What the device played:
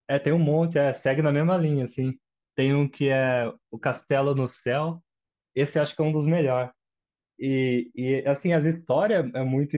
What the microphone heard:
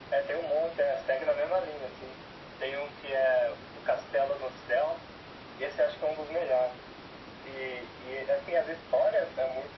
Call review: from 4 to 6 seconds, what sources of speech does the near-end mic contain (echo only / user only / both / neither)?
echo only